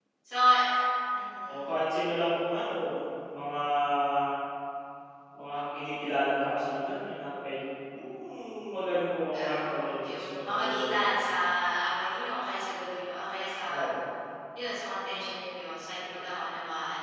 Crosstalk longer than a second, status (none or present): present